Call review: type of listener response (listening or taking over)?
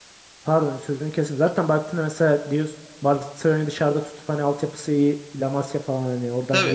taking over